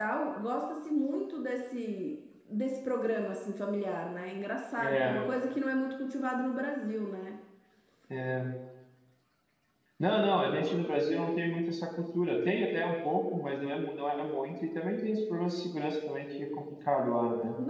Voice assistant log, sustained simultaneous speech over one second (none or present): none